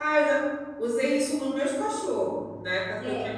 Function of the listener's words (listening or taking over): taking over